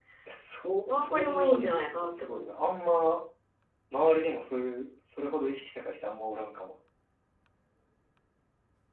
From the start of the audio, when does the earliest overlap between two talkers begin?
0.9 s

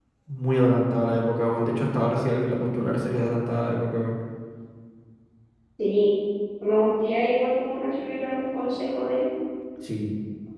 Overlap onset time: none

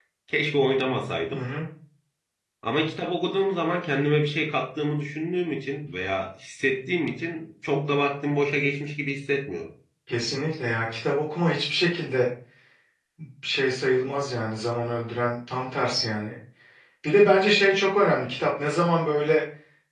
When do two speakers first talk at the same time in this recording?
none

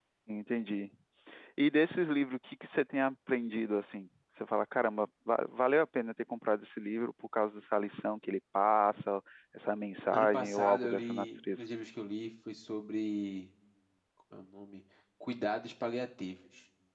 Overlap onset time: 10.1 s

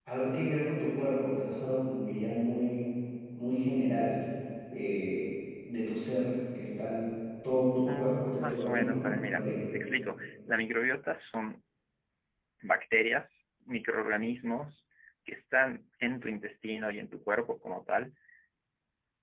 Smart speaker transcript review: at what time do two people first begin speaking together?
7.8 s

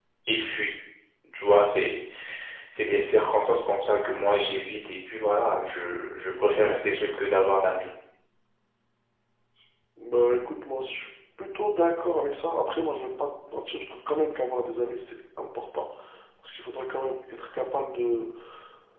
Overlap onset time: none

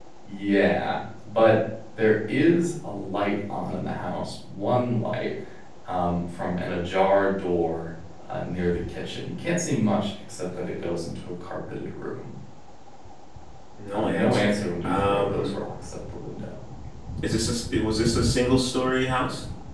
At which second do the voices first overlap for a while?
13.9 s

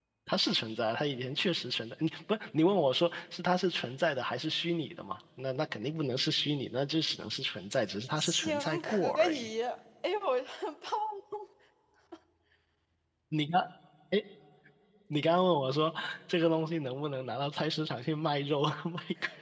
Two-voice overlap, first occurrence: 8.2 s

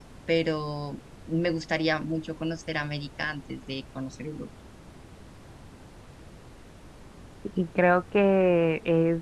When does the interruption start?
none

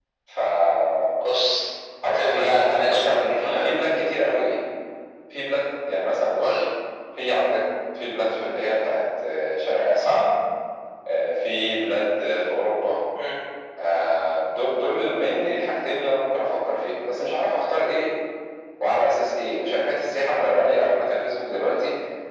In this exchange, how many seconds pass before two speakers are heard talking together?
2.0 s

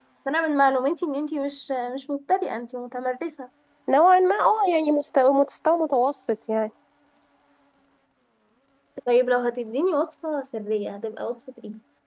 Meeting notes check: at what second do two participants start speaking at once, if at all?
none

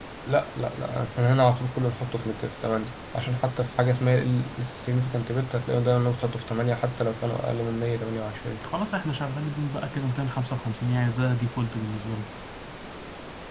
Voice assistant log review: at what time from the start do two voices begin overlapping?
none

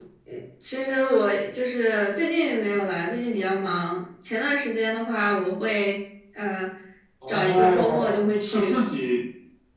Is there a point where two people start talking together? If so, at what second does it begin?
7.3 s

